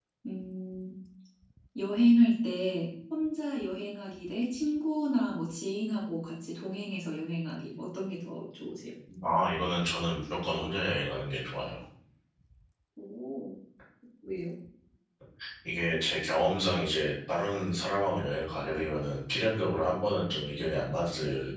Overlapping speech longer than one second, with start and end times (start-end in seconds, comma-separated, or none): none